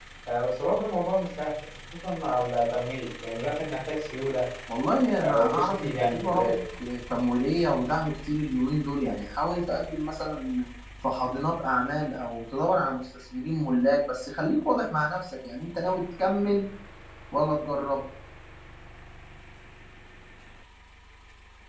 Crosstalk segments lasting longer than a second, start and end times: 5.2-6.5

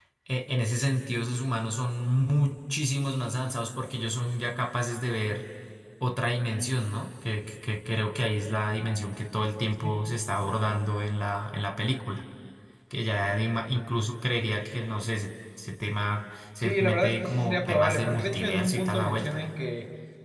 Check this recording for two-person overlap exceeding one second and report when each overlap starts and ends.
16.6-19.4

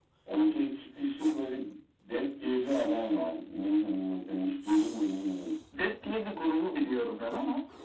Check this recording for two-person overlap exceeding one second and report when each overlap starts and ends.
none

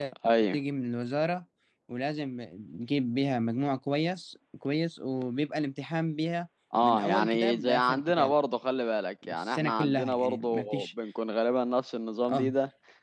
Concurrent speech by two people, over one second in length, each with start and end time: 6.8-8.3, 9.3-10.9

